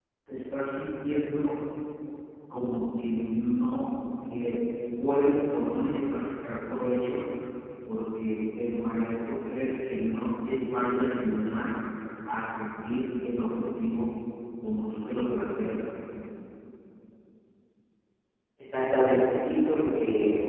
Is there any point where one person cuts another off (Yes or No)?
No